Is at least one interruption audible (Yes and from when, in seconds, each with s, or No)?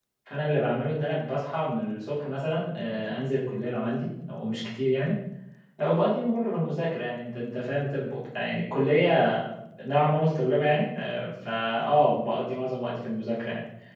No